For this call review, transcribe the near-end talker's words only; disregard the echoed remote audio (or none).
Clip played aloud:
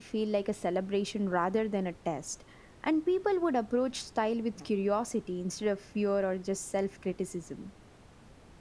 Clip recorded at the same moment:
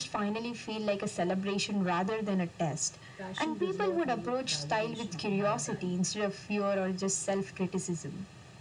fashion does not need validation to have value.